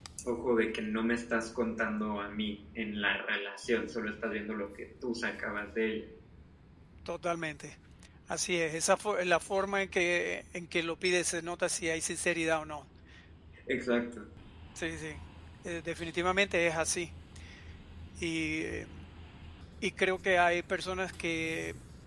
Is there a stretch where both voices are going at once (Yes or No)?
No